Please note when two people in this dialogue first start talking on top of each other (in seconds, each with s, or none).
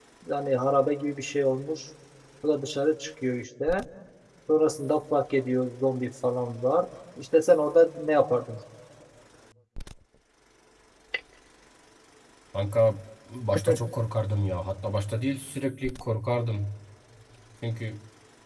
none